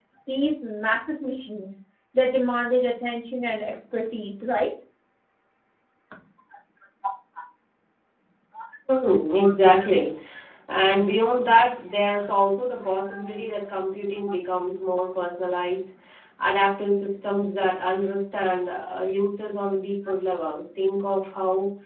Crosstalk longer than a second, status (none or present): none